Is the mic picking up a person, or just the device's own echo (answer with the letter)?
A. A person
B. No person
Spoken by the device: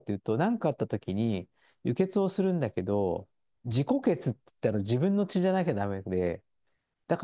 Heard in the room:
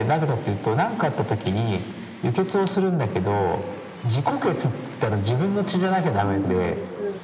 A